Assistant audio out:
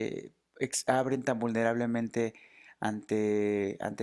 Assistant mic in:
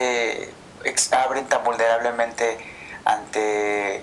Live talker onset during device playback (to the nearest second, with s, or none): none